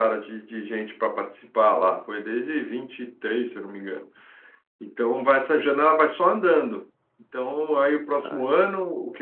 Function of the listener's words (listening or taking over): listening